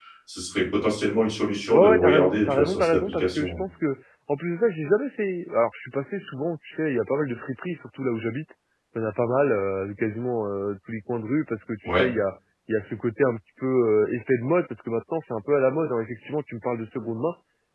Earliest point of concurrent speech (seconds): 2 s

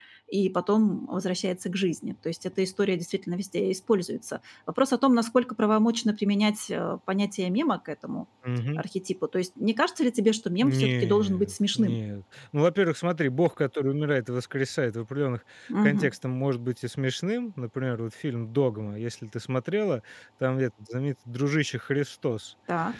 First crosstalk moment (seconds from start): 11 s

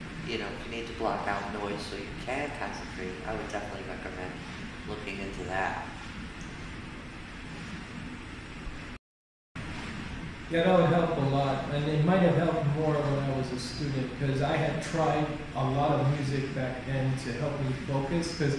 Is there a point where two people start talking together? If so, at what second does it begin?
none

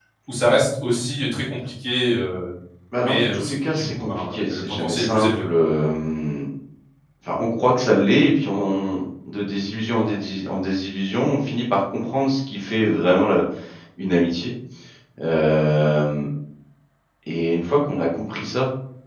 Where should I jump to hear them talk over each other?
3 s

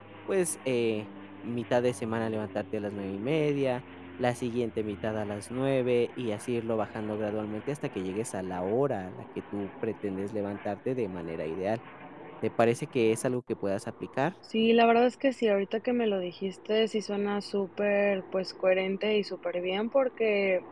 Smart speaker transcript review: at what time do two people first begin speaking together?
none

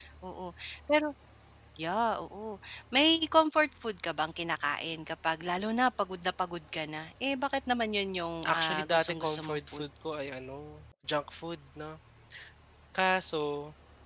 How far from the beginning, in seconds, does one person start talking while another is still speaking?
8 s

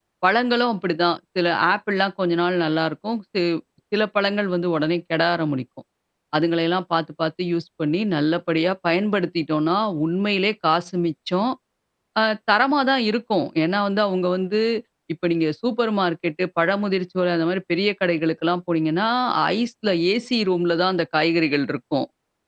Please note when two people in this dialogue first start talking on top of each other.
none

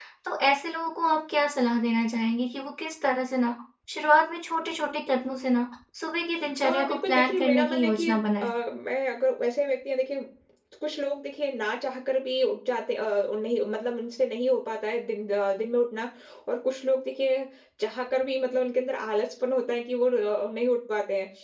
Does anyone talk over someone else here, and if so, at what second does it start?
7 s

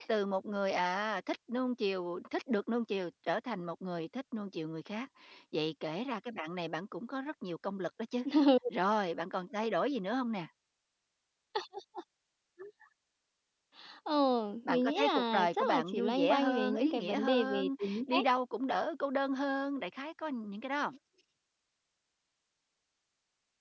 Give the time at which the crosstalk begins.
15 s

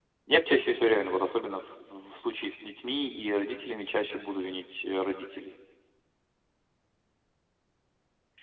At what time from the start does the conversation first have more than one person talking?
none

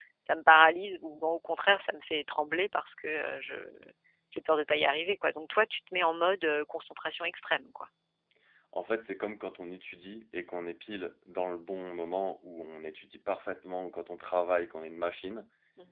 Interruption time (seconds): none

